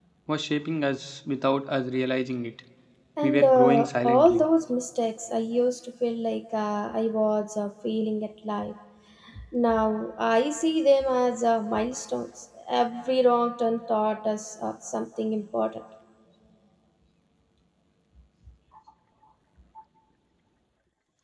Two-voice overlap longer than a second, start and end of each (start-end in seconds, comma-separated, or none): 3.2-4.5